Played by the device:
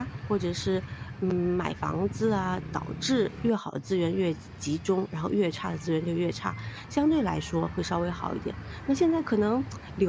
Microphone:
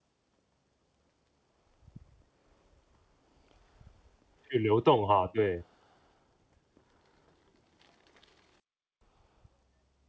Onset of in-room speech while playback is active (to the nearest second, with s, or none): 4 s